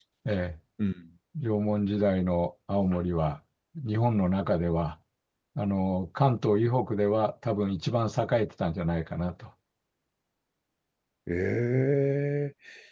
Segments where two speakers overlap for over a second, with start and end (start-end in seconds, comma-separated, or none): none